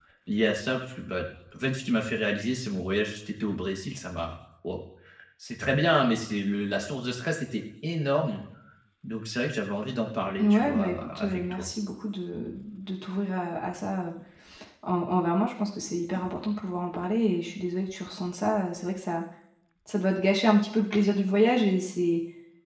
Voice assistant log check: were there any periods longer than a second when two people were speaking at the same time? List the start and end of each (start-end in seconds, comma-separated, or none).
10.4-11.7